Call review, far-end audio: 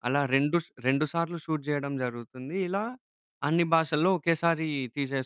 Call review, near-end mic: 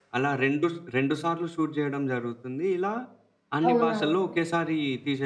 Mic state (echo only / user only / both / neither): both